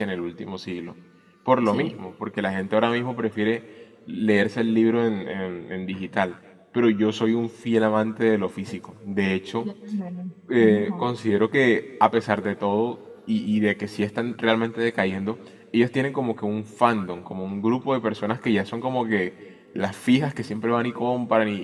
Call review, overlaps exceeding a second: none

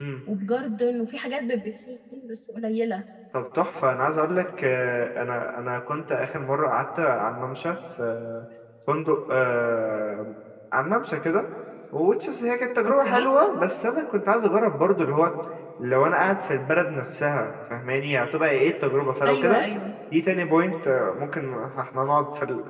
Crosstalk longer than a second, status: none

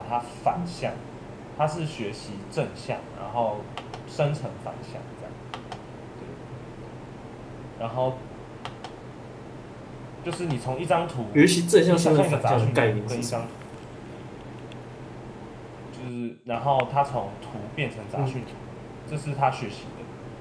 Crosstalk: present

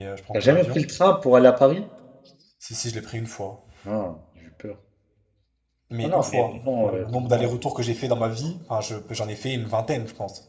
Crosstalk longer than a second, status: present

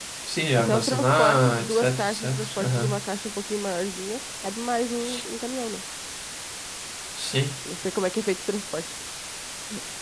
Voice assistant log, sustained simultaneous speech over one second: present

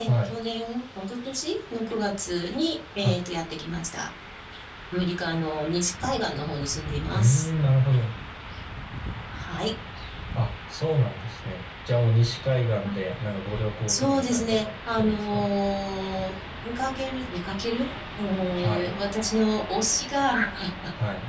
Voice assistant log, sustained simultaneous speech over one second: present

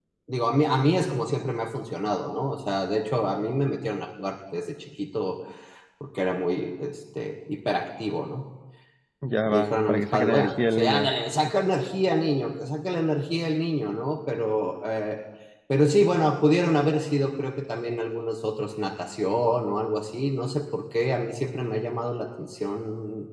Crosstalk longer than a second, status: present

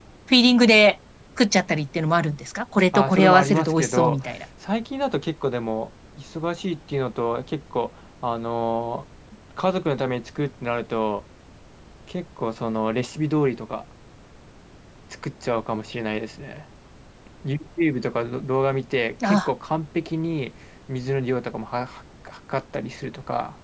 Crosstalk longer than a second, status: present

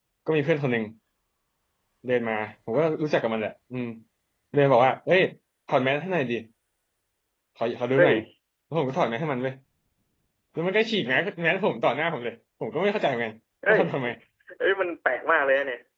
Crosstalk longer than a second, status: none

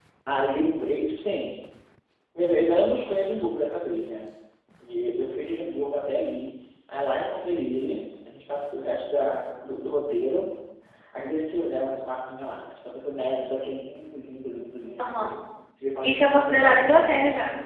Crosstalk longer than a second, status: present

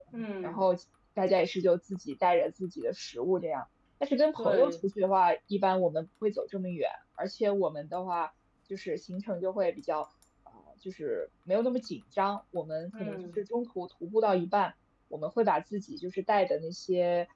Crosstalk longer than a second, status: none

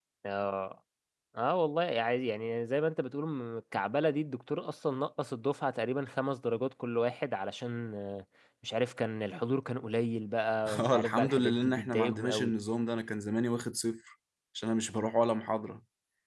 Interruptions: present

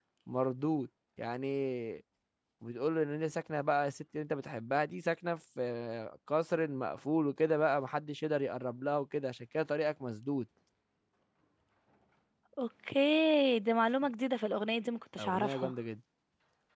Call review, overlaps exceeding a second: none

